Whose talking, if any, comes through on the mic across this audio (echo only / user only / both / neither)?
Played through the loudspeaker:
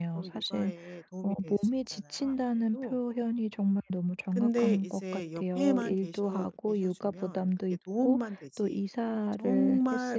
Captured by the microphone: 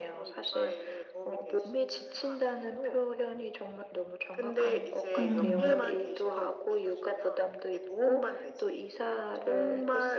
both